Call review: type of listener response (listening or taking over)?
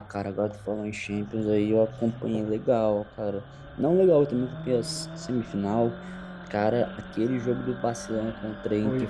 taking over